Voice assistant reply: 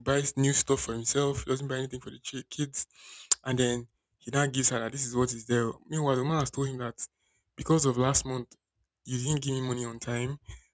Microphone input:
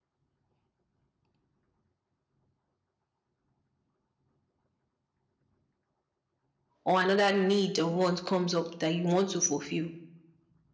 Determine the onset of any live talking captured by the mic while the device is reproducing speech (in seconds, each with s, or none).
6.8 s